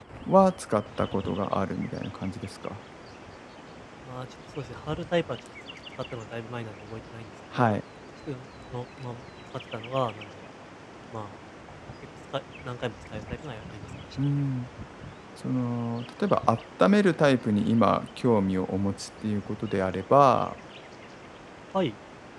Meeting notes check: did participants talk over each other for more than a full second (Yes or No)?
No